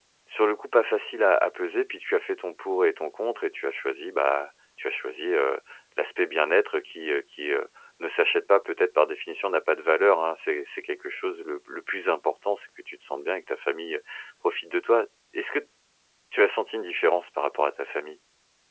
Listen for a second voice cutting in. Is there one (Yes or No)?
No